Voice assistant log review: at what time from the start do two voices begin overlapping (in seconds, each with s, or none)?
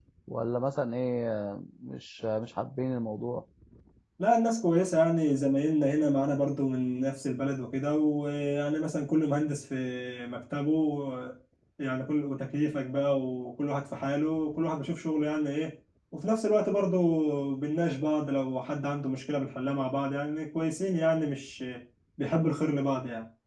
none